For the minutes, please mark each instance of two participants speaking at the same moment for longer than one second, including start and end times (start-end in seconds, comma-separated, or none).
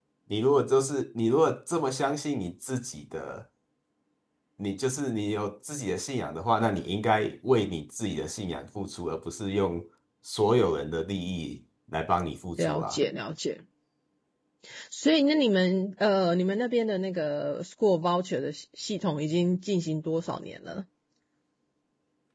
none